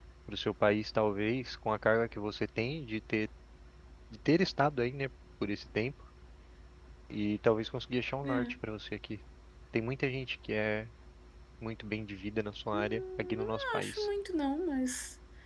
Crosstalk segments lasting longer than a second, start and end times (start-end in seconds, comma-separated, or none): 12.7-14.1